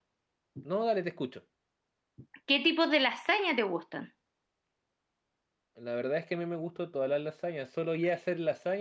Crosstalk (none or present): none